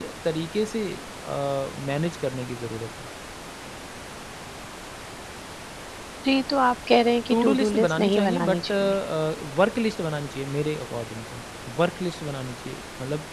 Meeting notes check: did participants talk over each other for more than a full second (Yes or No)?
Yes